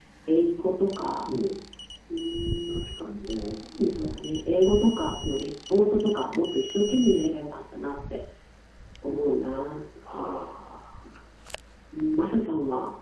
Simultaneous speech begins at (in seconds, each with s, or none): none